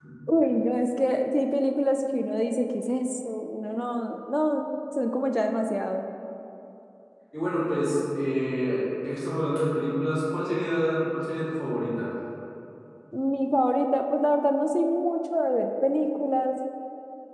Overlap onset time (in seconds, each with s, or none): none